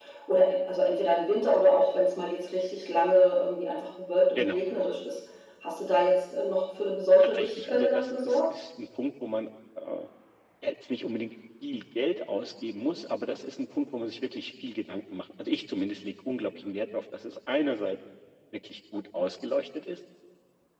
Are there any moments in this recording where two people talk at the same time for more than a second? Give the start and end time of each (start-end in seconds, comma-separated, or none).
7.2-8.4